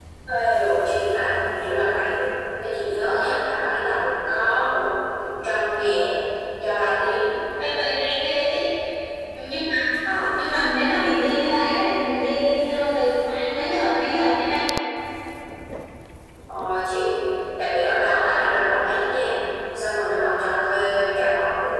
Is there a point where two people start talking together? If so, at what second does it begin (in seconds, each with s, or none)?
none